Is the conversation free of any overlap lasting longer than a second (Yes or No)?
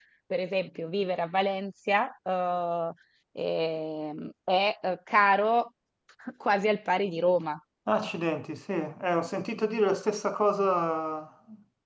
Yes